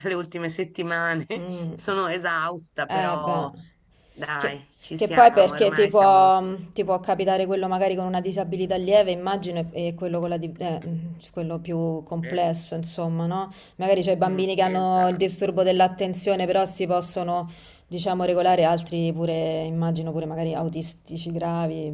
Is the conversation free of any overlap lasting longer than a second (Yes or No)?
No